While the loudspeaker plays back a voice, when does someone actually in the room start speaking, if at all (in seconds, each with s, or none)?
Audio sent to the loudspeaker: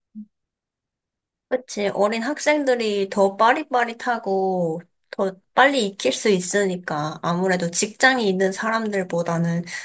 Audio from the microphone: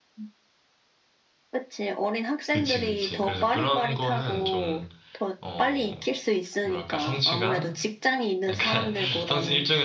2.5 s